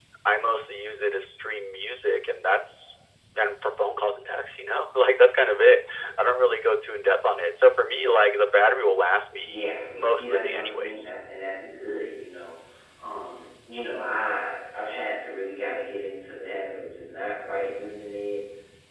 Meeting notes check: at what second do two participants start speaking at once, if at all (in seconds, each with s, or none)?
9.4 s